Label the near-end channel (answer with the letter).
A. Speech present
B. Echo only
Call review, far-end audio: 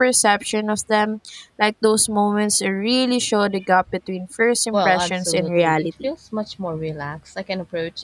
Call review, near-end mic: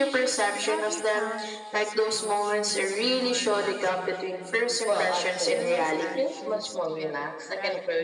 A